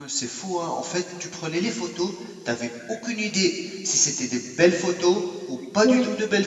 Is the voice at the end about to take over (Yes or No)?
No